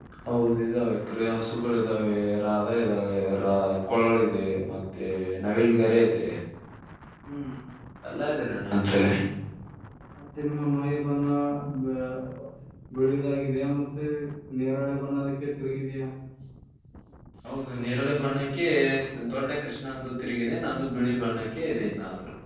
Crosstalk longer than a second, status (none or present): none